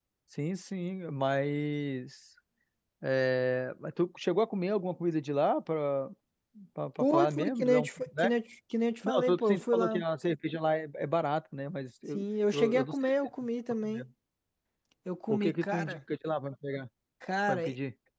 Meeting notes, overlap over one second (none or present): present